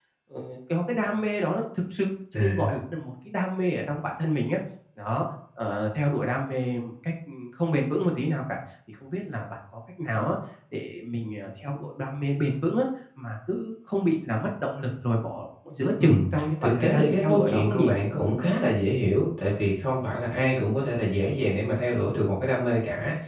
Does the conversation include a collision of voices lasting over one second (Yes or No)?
Yes